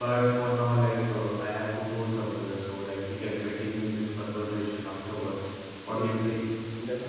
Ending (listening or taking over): taking over